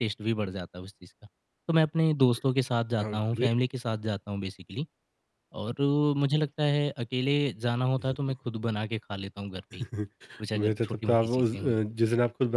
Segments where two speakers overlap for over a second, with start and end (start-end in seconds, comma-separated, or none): 10.5-11.8